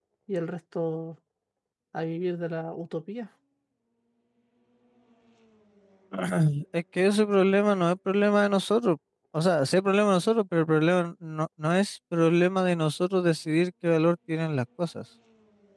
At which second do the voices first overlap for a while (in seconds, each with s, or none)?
none